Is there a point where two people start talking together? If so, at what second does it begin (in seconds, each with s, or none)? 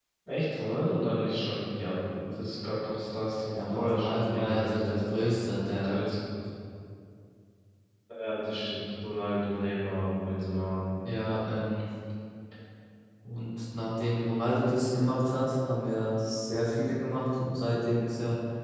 3.5 s